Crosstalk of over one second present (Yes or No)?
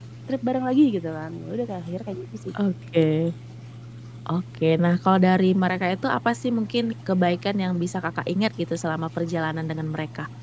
No